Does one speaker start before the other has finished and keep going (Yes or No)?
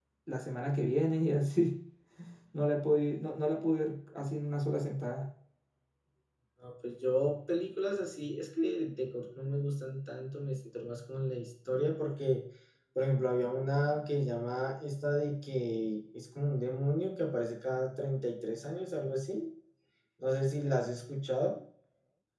No